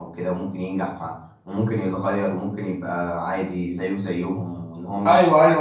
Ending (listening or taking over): taking over